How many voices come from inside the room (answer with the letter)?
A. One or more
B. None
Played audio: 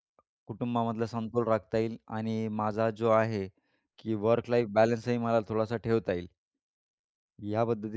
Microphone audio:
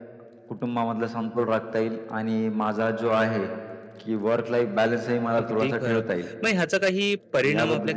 A